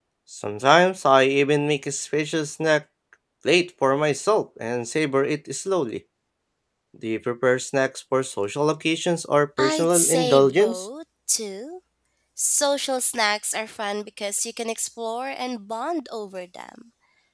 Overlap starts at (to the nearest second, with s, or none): 10 s